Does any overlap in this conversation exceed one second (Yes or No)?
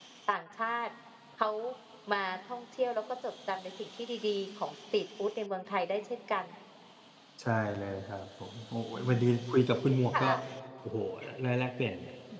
No